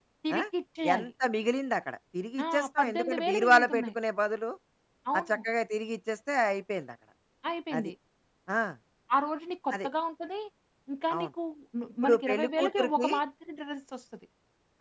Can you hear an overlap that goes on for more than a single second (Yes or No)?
Yes